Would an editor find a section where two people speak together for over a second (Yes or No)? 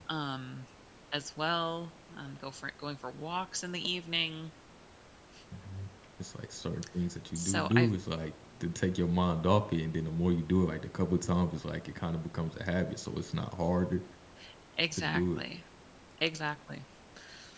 No